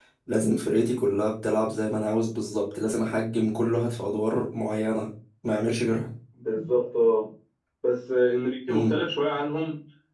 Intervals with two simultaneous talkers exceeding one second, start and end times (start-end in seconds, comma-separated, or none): none